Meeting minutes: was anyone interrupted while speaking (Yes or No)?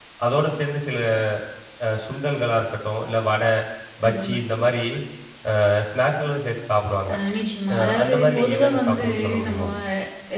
Yes